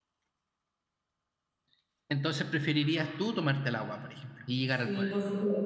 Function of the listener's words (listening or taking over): taking over